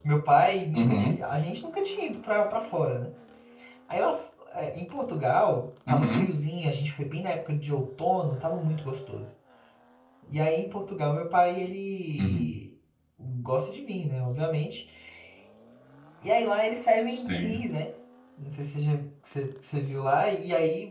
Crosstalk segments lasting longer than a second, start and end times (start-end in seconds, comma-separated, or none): none